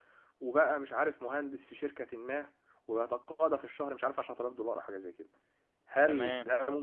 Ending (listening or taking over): listening